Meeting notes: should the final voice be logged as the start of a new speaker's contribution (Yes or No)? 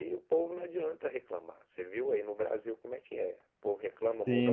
Yes